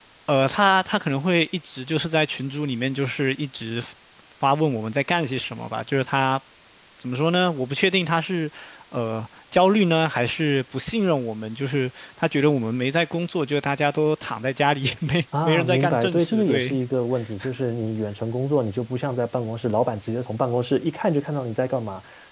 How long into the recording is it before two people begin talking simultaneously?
15.3 s

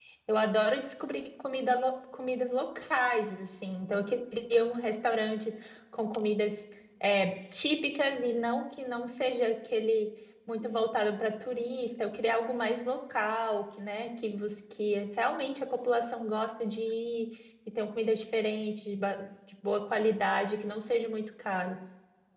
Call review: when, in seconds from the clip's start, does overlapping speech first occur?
none

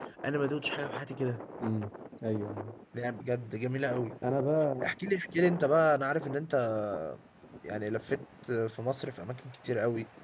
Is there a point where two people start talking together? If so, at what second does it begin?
none

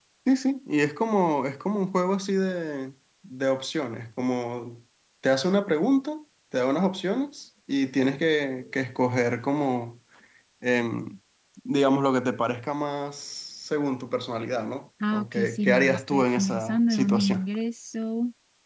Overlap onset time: 15.0 s

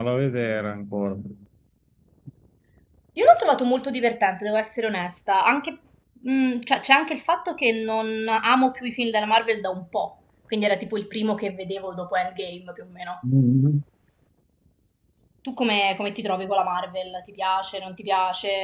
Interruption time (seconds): none

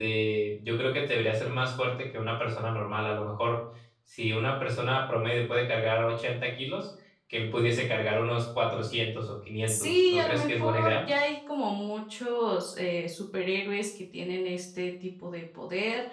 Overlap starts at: 9.7 s

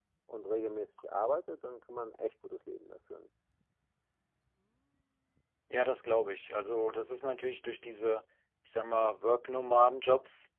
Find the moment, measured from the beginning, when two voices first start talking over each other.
none

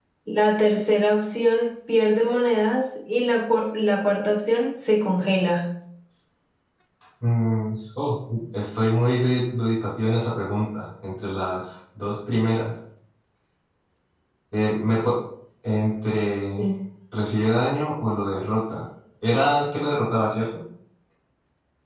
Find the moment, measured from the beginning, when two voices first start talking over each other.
none

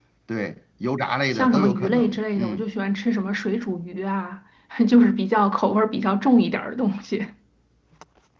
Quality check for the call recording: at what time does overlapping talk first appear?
1.3 s

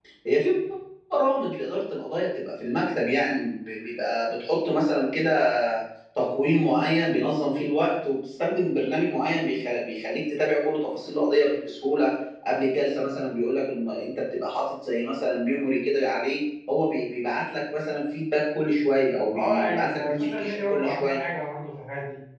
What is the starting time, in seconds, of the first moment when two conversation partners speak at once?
19.3 s

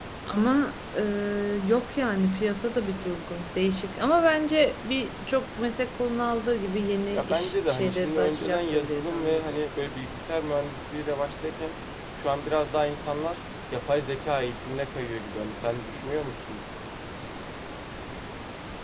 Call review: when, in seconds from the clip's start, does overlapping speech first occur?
7.1 s

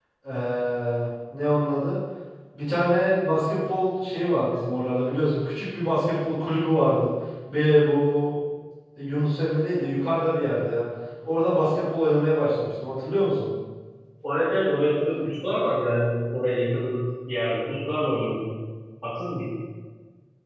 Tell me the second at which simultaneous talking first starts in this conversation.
none

